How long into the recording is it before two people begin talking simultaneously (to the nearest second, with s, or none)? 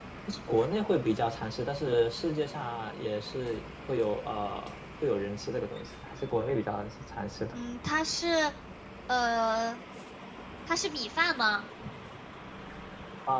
none